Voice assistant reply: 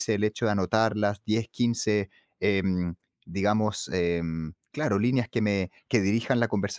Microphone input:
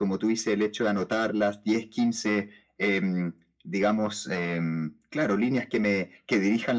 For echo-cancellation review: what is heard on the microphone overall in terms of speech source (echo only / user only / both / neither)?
echo only